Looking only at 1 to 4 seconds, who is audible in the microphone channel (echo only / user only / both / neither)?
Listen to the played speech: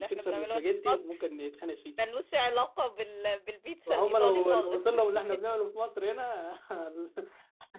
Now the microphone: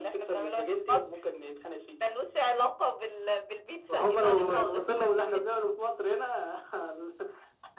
echo only